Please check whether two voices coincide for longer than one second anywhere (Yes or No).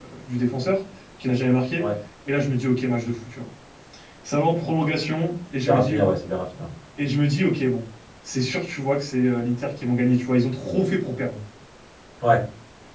No